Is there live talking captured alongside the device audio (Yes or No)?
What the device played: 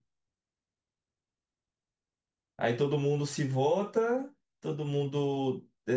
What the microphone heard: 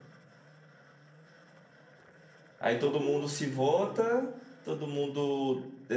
Yes